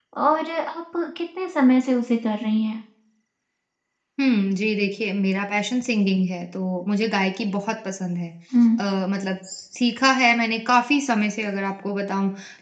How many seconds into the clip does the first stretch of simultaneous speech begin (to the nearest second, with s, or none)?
none